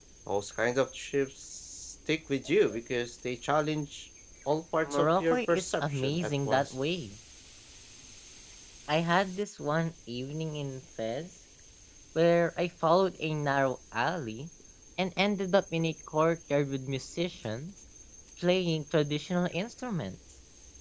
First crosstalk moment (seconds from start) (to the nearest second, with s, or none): 5 s